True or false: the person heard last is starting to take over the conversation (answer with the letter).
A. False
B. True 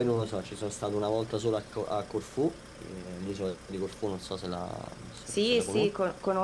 B